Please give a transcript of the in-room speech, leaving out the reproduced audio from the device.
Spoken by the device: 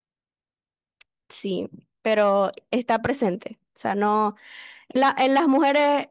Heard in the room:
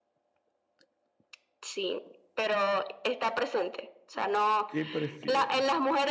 vale. ¿Qué prefieres?

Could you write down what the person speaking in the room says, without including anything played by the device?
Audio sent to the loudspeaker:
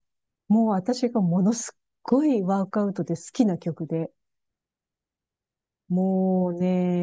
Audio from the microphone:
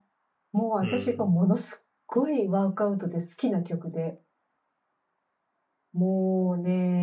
うん

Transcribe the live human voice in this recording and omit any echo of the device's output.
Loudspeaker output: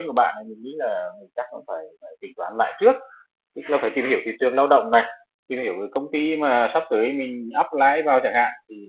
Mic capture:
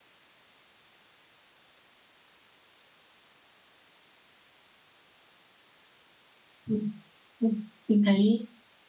ừ. Ừ. mình thấy

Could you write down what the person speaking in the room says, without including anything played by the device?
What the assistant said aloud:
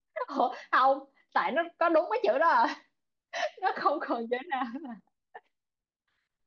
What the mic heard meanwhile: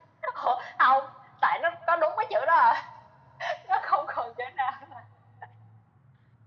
none

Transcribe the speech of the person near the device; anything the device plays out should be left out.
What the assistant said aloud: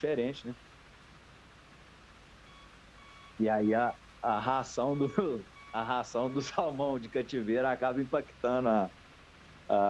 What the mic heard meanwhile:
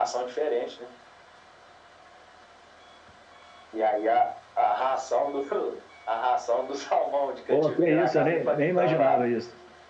Pô, que isso, eu nem, nem imaginava isso.

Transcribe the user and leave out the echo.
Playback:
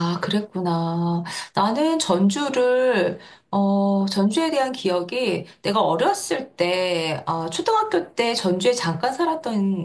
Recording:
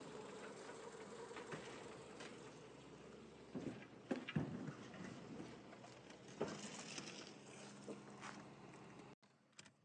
none

